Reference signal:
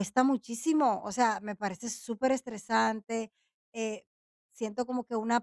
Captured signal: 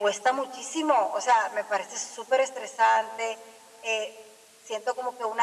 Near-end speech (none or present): none